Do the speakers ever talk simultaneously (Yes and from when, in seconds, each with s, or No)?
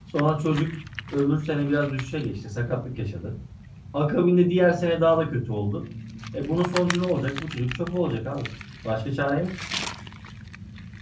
No